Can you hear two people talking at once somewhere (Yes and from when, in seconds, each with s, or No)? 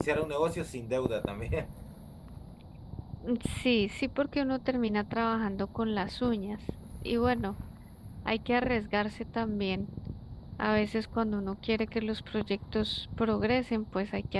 No